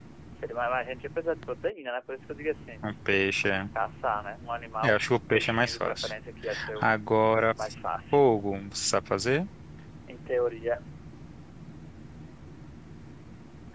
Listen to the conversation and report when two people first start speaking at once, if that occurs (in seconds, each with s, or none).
4.8 s